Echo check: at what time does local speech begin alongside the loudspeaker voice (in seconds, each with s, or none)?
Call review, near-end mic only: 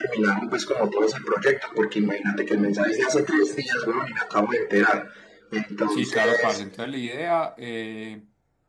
5.8 s